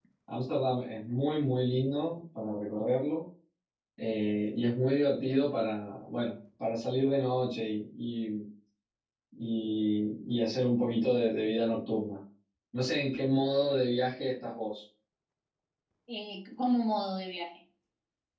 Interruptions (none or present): none